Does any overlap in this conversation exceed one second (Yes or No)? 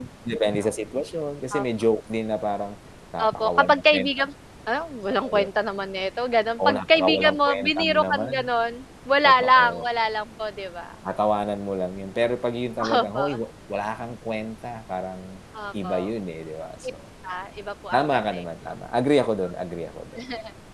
Yes